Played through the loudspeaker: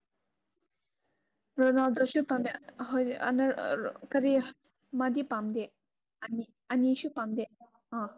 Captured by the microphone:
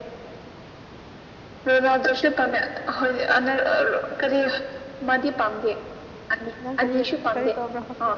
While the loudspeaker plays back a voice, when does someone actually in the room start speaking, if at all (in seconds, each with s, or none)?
6.6 s